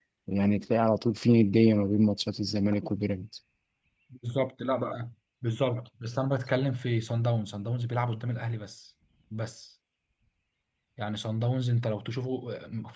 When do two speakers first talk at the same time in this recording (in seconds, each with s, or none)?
none